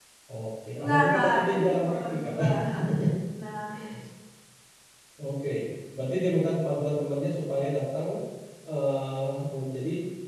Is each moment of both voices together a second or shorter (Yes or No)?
No